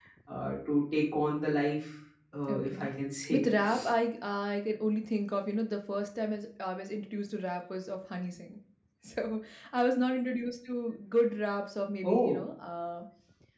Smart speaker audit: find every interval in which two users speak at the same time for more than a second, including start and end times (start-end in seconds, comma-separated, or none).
none